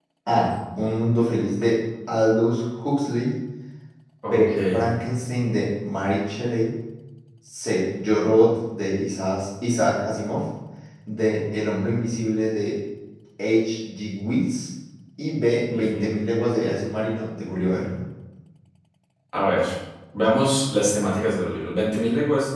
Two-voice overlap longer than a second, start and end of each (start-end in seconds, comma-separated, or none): none